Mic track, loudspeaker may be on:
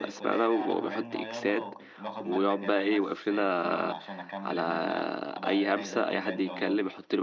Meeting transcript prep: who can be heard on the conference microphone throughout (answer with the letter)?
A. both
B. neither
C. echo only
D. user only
A